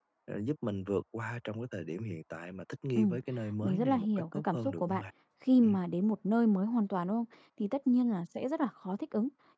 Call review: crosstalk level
present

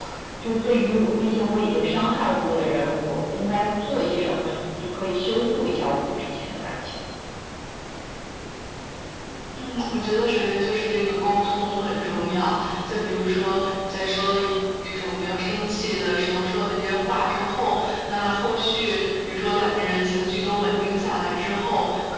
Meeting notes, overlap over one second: none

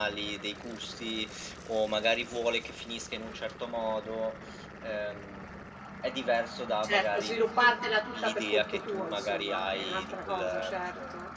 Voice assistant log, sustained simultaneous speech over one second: present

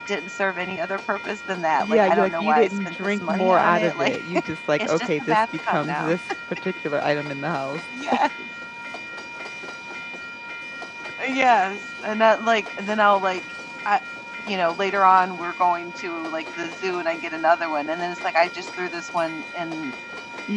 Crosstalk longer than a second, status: present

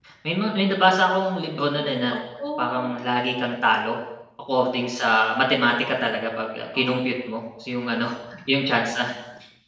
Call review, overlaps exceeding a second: none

